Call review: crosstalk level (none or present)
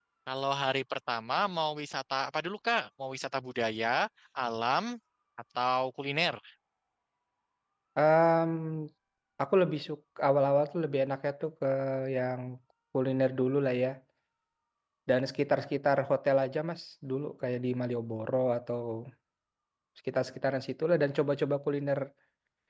none